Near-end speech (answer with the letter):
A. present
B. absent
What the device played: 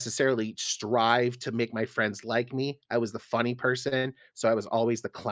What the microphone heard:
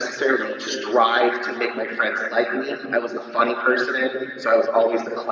B